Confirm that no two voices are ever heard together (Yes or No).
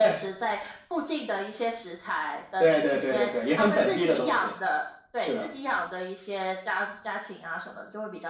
No